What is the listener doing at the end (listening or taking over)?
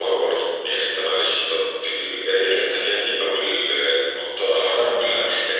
listening